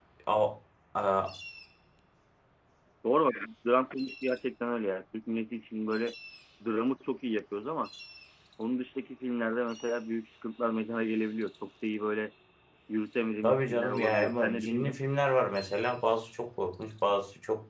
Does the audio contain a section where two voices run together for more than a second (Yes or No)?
Yes